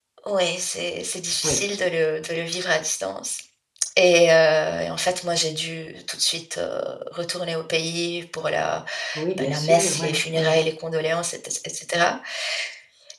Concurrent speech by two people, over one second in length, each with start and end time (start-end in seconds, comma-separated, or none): 9.4-10.6